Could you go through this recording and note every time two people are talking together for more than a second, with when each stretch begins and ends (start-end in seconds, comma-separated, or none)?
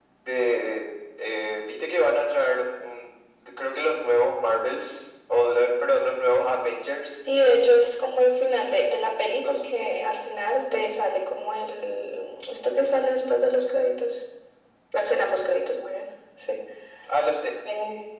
none